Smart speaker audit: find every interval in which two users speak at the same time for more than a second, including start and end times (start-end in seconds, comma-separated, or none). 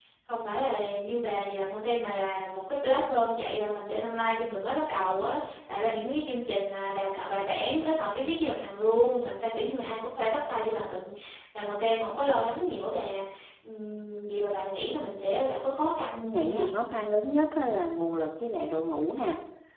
none